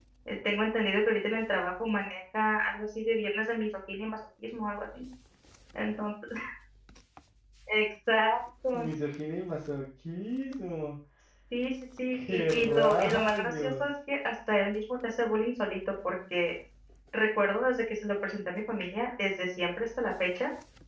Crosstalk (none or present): present